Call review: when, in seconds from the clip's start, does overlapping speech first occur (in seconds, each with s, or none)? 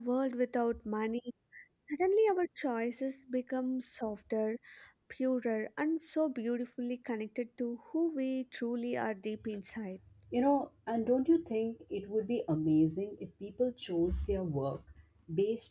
none